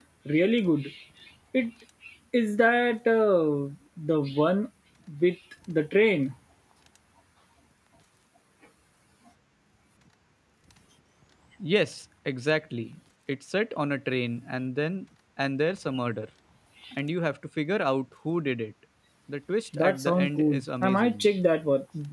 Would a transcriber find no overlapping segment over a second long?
No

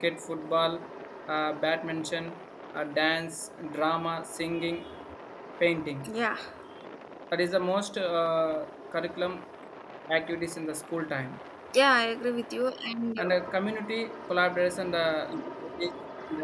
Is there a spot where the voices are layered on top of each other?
No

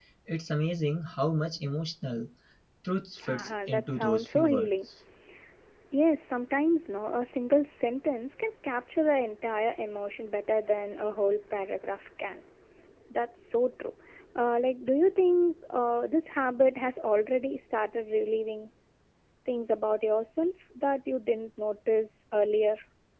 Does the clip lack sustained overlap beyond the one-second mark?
No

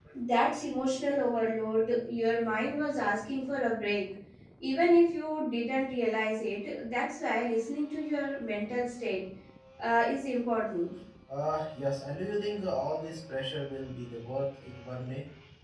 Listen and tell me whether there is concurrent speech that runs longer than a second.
No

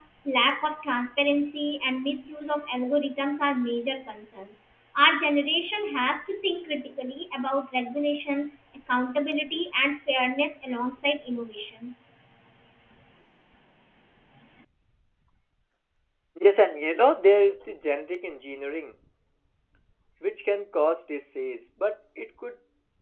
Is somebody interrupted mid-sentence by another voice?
No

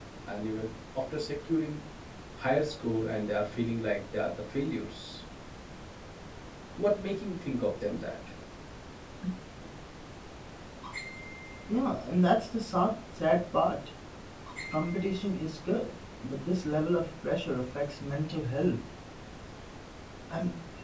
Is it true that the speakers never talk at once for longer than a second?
Yes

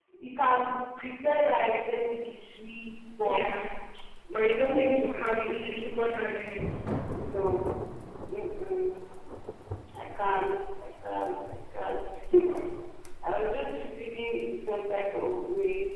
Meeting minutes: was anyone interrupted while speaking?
Yes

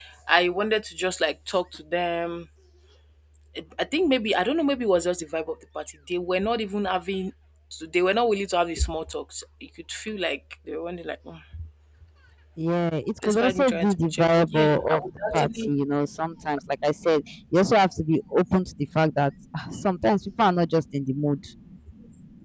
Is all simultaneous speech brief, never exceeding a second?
No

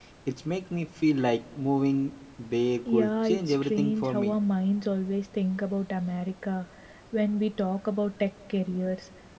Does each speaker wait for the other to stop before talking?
No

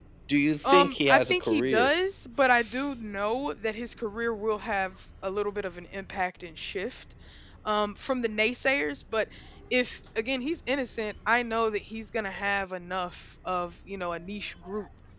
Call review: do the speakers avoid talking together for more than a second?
No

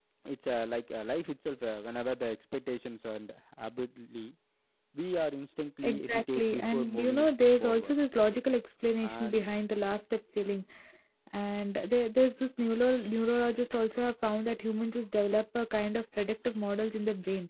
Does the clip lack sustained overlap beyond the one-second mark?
No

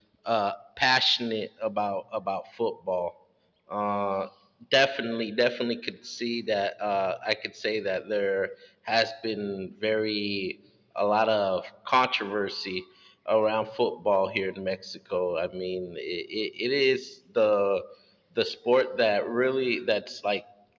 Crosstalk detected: No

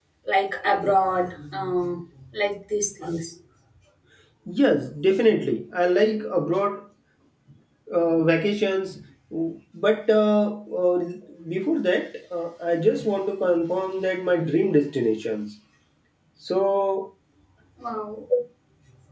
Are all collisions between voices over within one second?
Yes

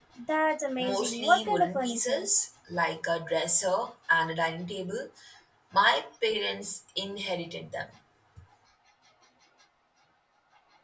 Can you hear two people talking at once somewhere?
Yes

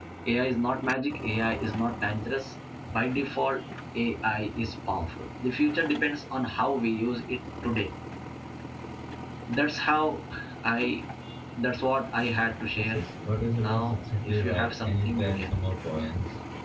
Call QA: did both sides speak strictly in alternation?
No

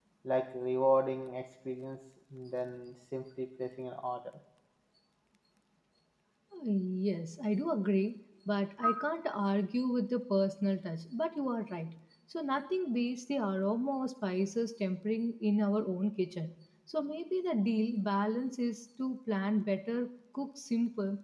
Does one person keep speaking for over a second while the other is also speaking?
No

